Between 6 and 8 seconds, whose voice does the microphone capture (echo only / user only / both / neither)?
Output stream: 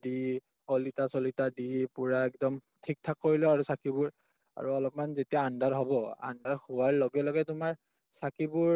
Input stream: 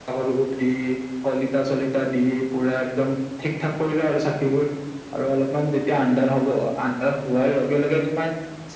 echo only